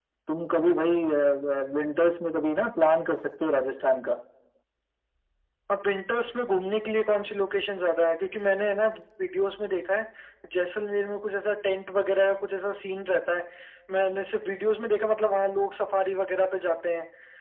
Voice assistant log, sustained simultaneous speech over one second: none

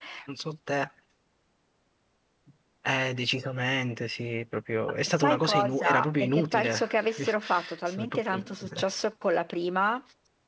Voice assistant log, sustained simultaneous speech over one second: present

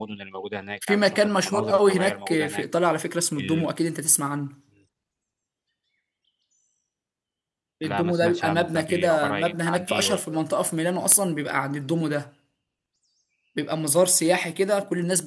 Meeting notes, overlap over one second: present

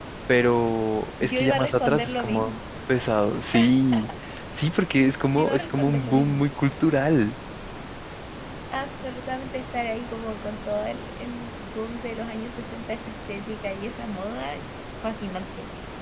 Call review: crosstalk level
present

